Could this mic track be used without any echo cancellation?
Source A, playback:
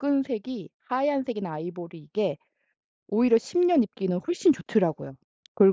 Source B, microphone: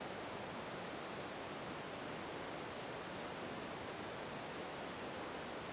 Yes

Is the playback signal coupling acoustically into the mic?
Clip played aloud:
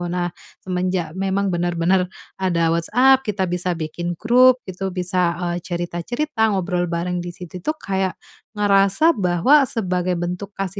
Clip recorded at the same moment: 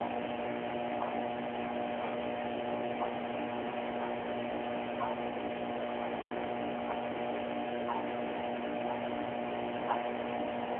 No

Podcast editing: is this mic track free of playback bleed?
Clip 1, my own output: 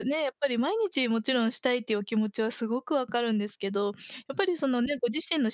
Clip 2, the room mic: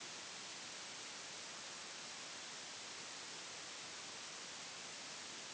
Yes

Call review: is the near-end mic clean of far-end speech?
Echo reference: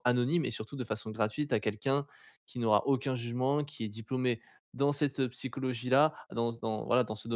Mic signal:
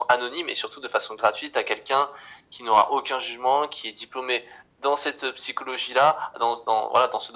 No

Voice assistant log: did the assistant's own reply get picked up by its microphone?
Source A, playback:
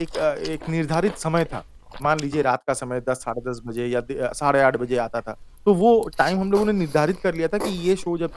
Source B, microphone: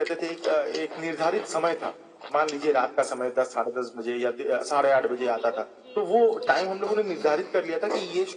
Yes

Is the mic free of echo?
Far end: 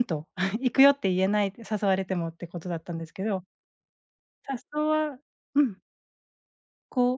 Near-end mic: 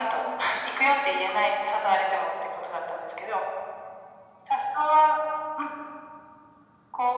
No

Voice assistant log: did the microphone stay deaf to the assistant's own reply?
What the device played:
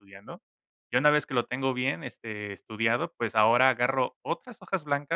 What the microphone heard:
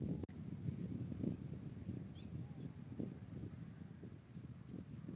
Yes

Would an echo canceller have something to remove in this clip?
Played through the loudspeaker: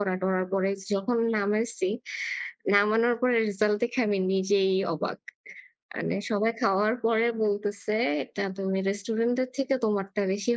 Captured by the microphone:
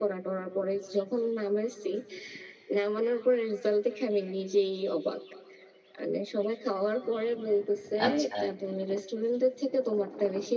Yes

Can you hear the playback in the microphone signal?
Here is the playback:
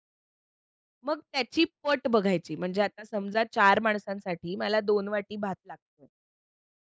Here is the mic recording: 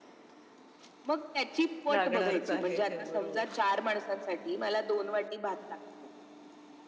Yes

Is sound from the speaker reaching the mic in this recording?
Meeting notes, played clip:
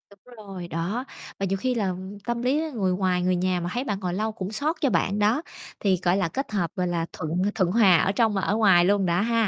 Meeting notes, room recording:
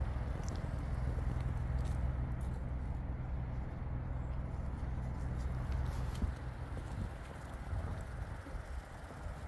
No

